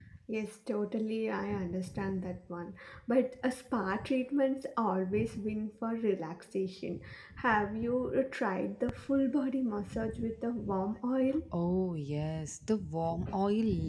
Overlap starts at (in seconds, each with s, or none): none